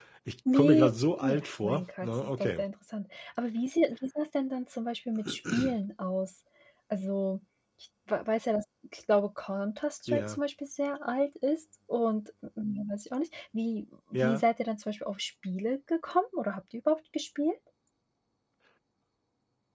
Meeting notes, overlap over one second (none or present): present